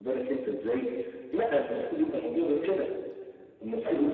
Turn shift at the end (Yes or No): No